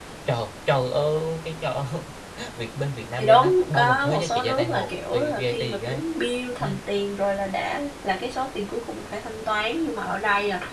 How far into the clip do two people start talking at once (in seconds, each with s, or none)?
3.2 s